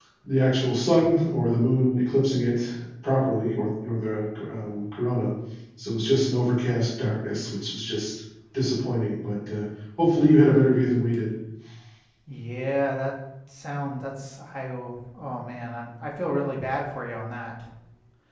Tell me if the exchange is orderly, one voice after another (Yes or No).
Yes